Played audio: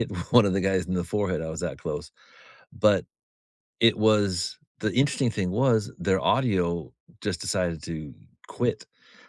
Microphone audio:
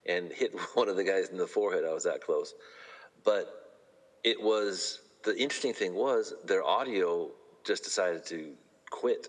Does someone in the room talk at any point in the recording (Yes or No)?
No